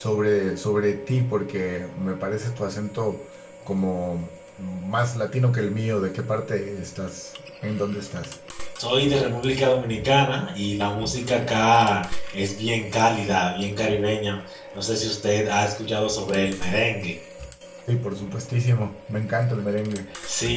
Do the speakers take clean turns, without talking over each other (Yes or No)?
Yes